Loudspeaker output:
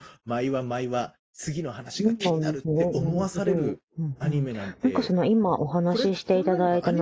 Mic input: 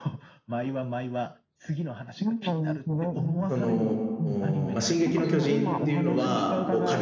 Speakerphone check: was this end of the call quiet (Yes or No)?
No